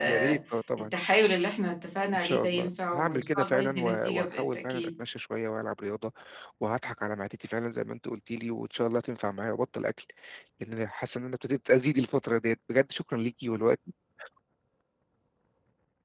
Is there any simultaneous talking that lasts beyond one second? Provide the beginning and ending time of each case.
2.1-4.9

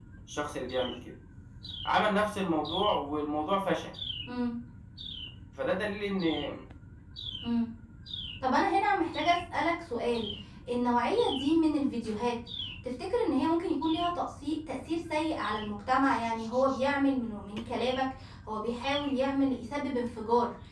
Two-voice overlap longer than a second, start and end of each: none

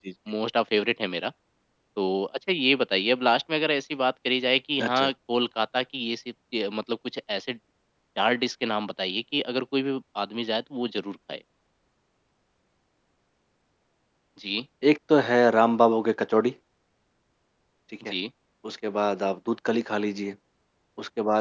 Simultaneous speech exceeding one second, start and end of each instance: none

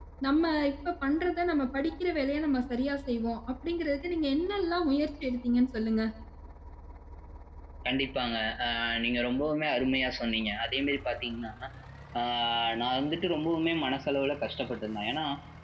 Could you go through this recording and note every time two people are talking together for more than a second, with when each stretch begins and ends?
none

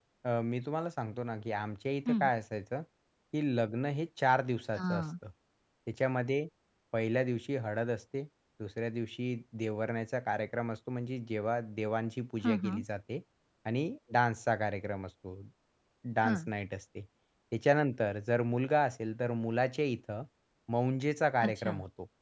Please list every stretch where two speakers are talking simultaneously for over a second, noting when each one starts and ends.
none

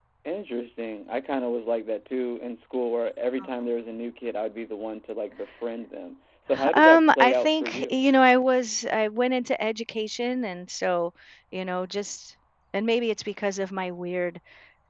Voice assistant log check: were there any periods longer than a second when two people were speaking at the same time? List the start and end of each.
6.7-8.0

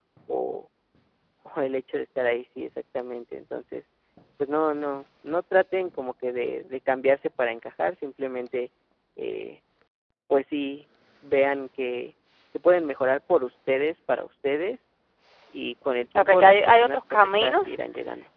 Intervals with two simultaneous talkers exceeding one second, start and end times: 16.1-17.8

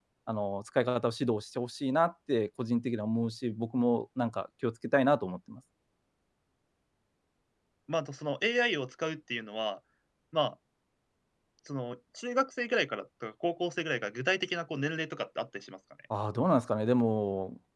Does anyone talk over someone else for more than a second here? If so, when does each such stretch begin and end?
none

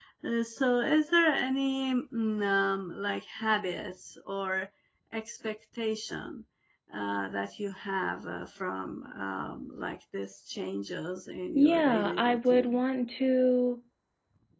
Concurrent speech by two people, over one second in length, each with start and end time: 11.6-12.8

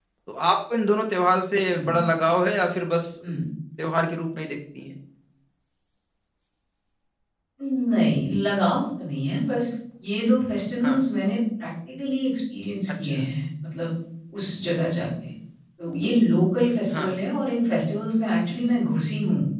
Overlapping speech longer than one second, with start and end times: none

